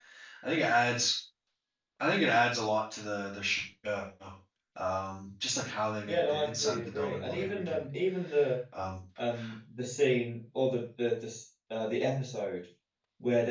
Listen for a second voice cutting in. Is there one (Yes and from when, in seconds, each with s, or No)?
Yes, from 6.1 s